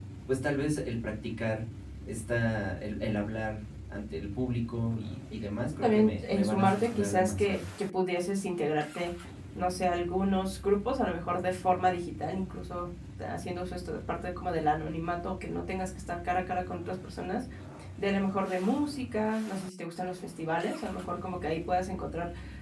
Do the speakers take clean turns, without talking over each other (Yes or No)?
No